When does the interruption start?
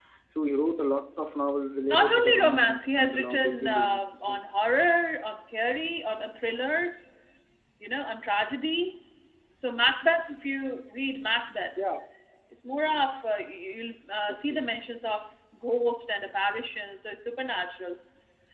2 s

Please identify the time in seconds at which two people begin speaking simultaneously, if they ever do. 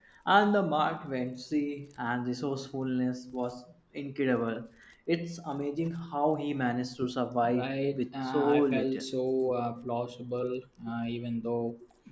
7 s

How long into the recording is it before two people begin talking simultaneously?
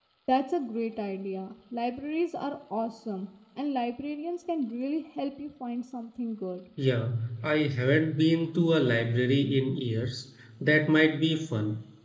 none

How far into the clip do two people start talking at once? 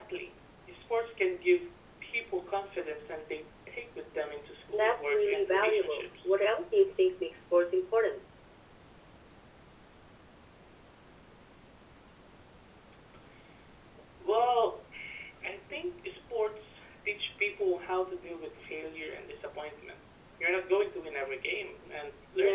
5 s

